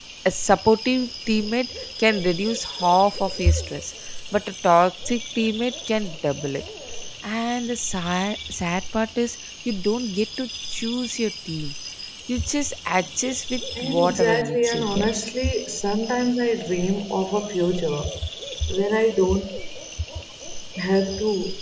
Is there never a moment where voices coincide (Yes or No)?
No